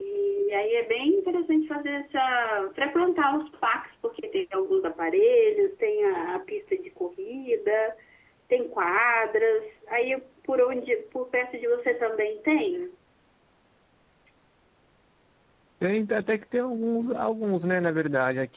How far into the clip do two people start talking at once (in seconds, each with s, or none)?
none